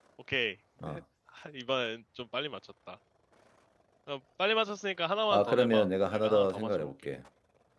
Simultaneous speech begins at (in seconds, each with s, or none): 5.3 s